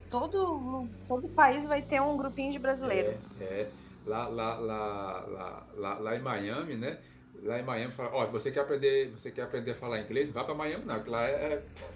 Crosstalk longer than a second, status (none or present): none